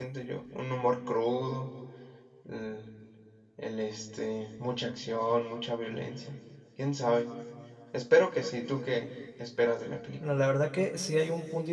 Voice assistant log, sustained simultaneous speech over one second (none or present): none